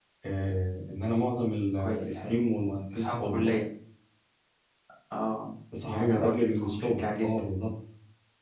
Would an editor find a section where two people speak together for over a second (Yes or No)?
Yes